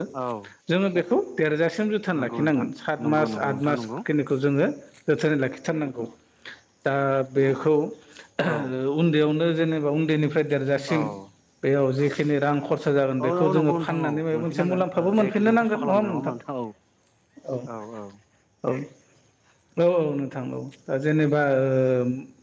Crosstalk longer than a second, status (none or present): present